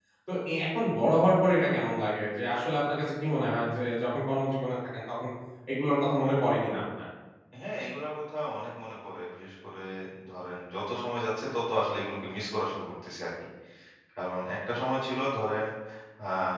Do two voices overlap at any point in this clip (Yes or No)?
No